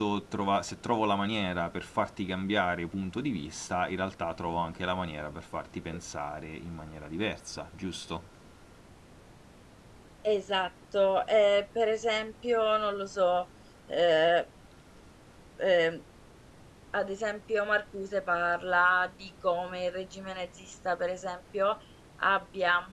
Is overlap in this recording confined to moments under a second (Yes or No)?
Yes